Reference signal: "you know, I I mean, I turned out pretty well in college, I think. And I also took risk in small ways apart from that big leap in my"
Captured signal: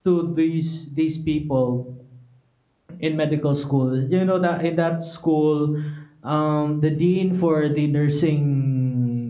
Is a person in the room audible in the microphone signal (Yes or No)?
Yes